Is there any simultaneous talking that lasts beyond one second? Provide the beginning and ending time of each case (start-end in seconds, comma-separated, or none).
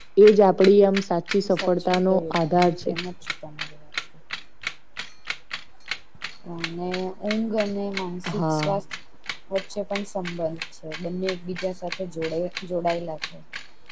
1.4-3.0